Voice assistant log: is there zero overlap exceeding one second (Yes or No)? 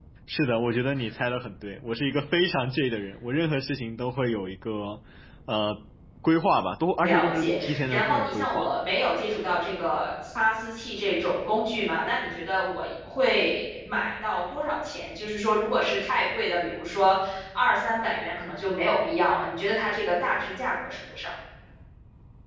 No